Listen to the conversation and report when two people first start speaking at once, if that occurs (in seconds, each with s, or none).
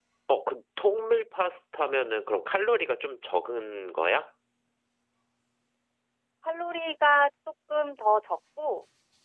none